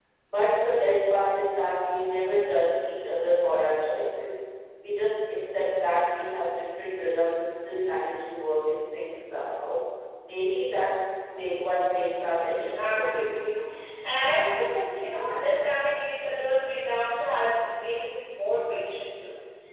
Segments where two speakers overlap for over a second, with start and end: 12.3-13.5

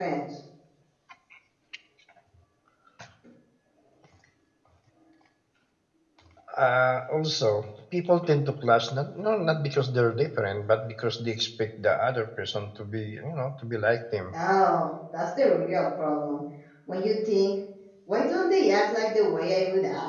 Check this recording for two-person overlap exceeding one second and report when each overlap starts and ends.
none

